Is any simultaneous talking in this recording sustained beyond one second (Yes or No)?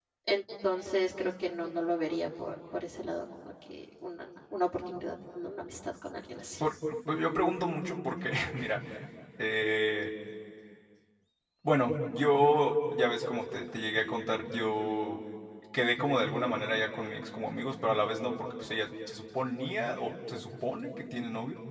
No